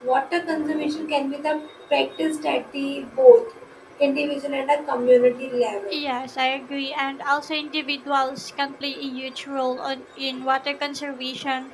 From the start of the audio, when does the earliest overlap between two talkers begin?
none

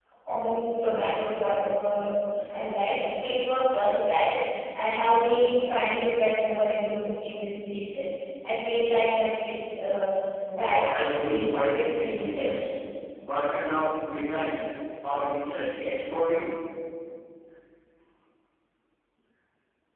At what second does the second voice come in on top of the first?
10.5 s

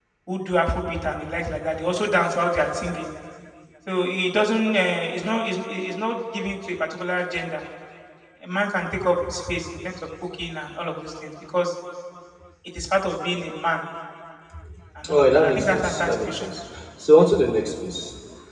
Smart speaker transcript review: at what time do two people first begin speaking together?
15.1 s

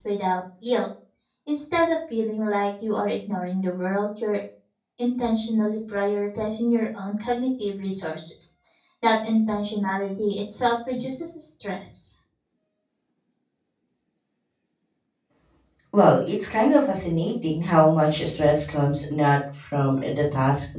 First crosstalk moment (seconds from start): none

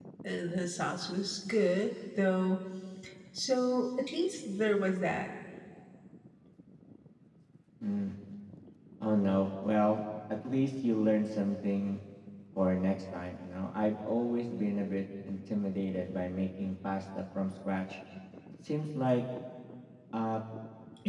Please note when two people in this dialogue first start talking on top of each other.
none

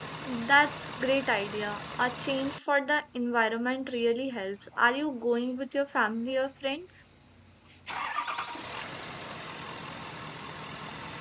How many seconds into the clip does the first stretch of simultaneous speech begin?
none

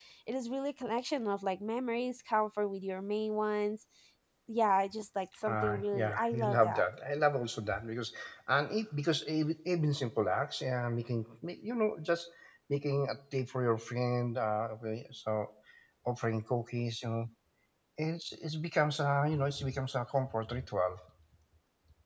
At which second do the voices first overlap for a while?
5.5 s

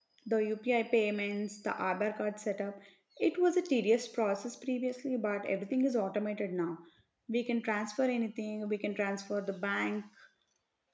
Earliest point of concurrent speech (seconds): none

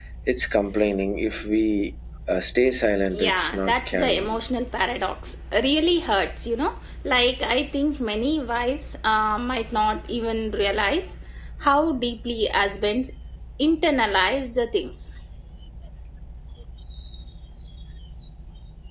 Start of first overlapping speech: 3.1 s

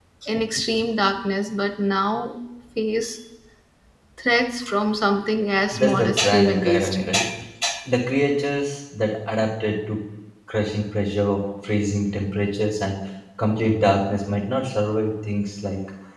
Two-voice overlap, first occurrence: 5.7 s

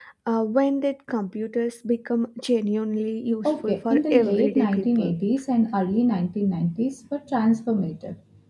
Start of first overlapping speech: 3.5 s

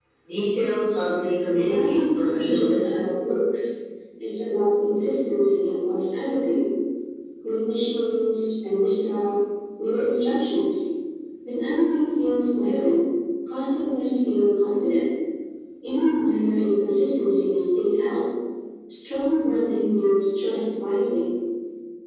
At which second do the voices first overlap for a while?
1.4 s

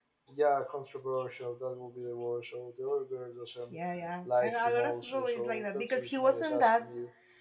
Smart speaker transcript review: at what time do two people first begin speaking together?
4.2 s

